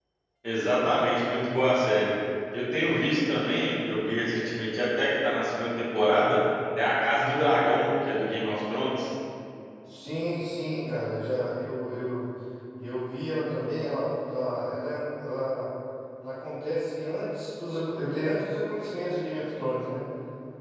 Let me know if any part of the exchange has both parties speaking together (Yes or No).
No